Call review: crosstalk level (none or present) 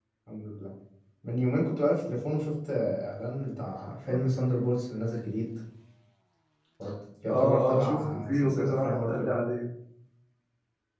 present